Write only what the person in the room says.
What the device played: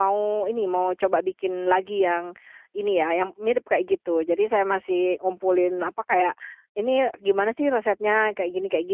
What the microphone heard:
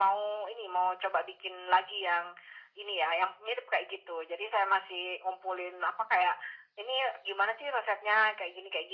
none

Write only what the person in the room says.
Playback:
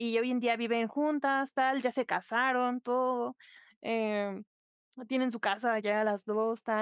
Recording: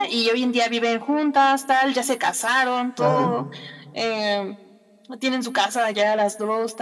Ajá.

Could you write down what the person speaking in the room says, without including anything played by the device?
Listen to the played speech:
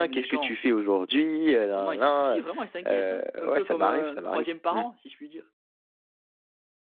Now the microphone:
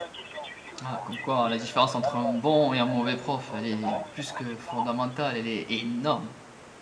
Ah comme quoi, la différence entre un bon et un mauvais prof, elle est plus que fondamentale, elle est énorme.

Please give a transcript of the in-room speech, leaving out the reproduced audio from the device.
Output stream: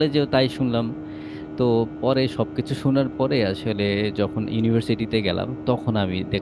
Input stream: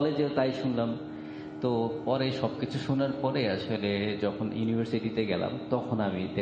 none

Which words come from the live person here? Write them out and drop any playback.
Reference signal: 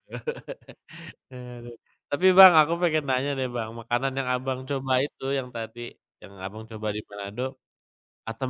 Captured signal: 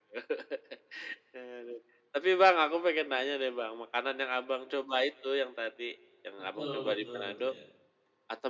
Betul betul iya.

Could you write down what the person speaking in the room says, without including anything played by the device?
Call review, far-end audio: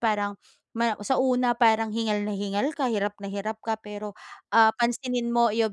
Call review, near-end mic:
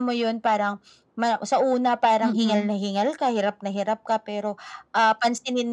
Mm.

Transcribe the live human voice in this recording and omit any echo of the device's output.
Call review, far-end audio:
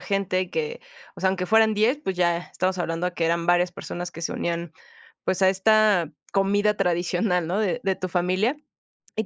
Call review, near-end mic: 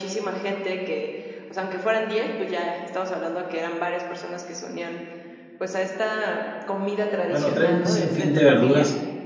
bueno trae un sinfín de verduras

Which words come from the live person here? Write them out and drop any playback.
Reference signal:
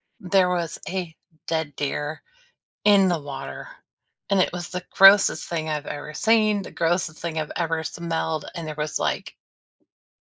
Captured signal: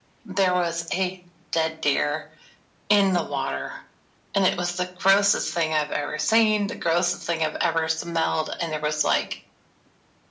none

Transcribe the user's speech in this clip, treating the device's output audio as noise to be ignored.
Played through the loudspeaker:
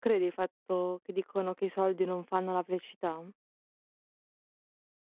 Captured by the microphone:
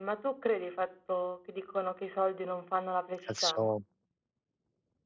senso

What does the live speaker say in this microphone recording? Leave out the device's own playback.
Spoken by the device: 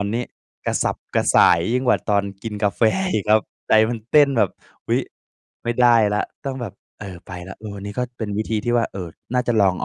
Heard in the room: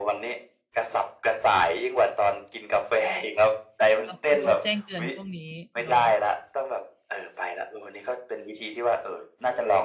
ต้อง ต้องลดแจ้งเตือนพวกนี้เนาะ

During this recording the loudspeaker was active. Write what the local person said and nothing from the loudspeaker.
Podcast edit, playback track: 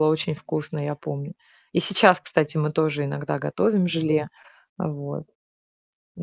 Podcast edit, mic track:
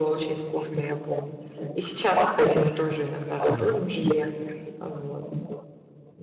Мгм.

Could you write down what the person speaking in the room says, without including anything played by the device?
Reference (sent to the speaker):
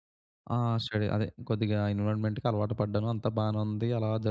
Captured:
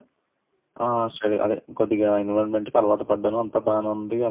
none

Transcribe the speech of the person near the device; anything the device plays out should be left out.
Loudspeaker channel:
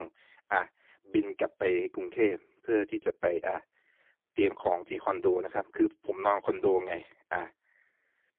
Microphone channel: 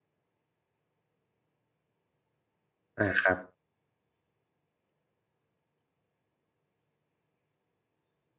อา ครับ

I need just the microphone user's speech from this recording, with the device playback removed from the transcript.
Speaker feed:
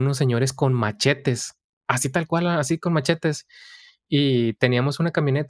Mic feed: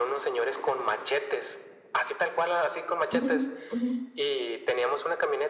Ujú, ujú,

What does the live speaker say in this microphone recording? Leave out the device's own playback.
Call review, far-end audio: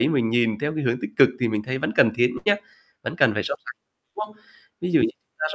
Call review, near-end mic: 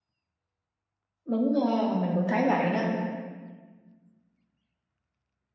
Đúng nha, mình cũng thấy vậy đó.

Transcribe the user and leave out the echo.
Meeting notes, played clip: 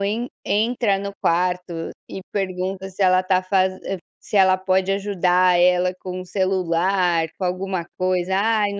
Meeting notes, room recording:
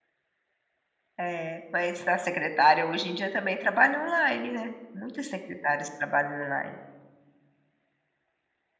É, mas a secretária hoje em dia também trabalha online, né. Muitas secretárias trabalham online.

